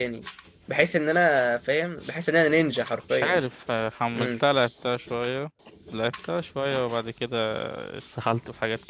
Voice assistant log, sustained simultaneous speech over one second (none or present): none